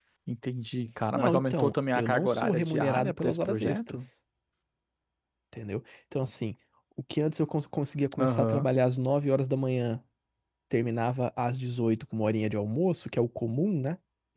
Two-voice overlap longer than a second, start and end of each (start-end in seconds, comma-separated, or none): 1.1-4.0